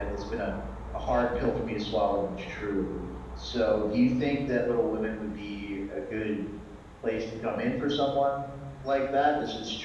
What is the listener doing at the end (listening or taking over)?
listening